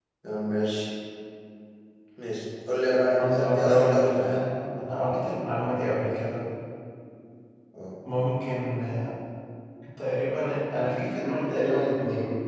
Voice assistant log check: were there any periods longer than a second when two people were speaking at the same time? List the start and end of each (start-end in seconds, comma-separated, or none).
3.2-4.4